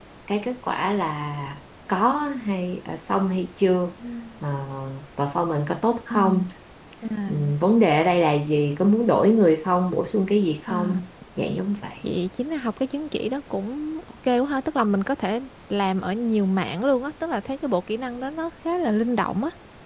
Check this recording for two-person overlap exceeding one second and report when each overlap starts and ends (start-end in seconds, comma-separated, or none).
none